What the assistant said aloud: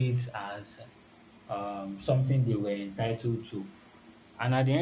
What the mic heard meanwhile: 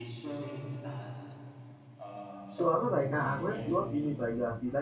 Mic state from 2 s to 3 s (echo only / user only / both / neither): both